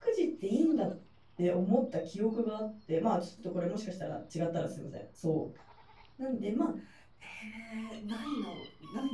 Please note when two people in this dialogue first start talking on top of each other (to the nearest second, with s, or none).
none